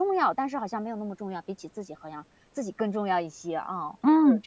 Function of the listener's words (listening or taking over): taking over